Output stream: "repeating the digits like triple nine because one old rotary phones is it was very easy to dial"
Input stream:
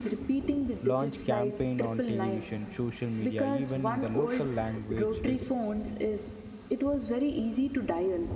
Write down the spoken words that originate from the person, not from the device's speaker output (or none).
launch campaign on television social media even in the local languages